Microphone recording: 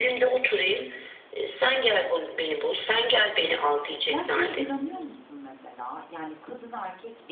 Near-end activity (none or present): present